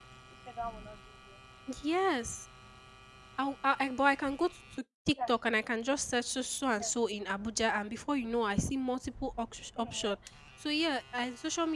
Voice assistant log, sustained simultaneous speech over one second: none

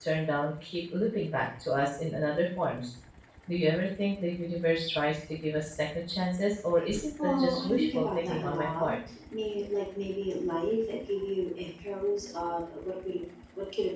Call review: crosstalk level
present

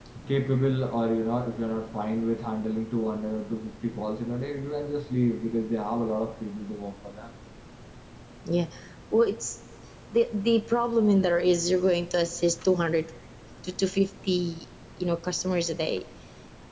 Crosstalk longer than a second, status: none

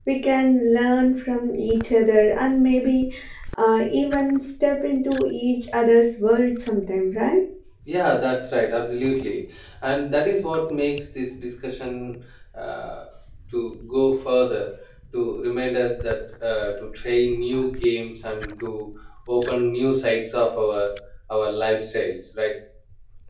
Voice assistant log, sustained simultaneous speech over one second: none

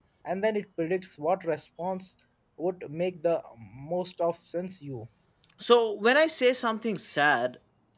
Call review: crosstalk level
none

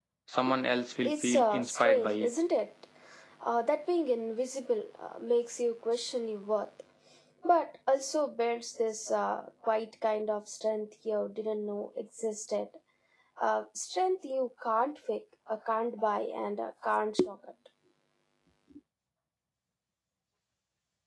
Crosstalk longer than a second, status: present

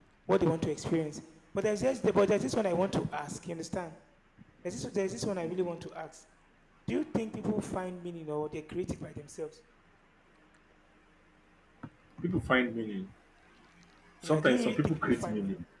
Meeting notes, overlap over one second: present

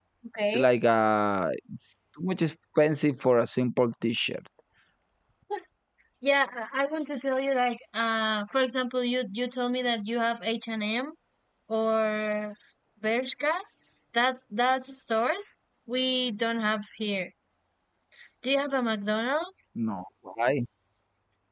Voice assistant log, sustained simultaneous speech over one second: none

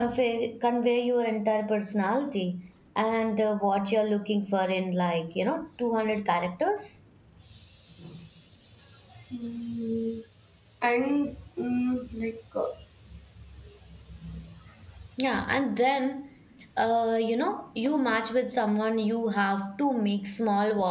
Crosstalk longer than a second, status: none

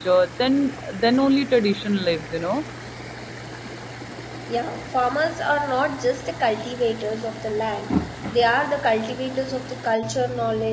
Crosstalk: none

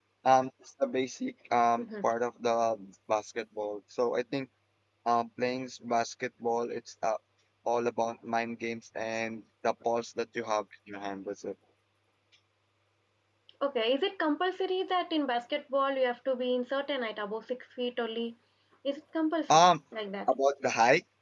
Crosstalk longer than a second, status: none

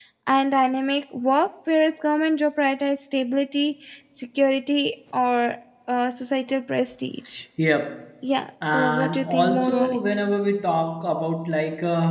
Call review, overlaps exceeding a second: present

